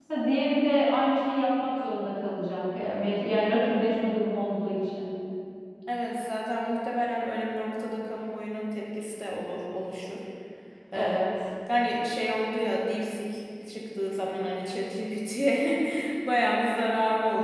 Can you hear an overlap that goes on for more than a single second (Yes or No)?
No